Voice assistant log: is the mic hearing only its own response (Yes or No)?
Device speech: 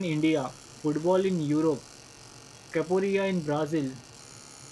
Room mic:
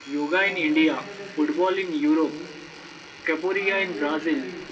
No